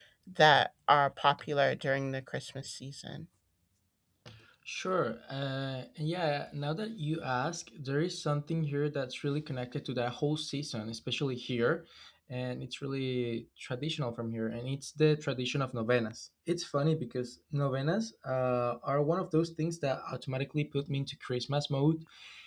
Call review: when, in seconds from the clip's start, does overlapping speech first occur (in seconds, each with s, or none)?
none